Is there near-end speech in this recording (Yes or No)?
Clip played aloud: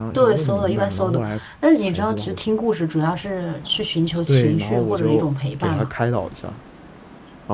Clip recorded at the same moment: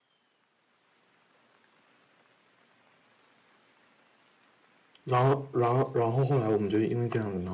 Yes